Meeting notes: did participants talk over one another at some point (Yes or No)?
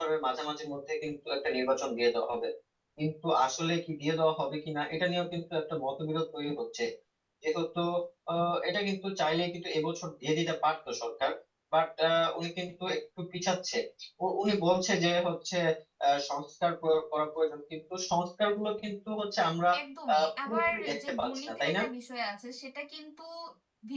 Yes